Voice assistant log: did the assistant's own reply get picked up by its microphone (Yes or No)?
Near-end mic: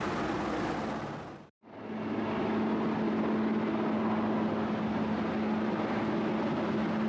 No